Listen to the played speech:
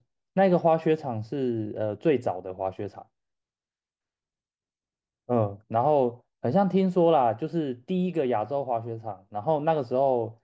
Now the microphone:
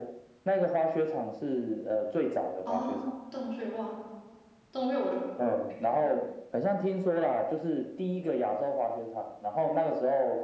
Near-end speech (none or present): present